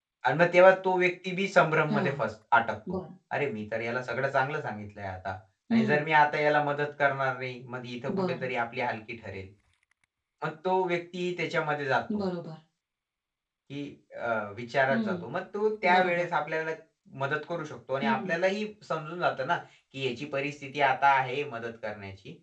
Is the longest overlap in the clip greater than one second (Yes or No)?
No